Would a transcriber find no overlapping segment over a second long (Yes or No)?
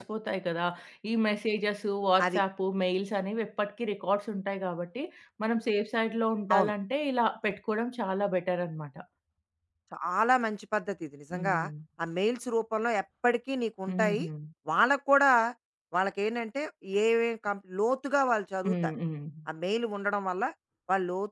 Yes